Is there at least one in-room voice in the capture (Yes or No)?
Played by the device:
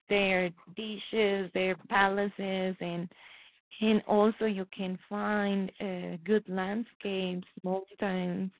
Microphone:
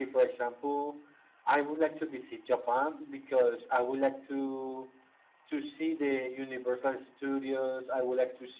Yes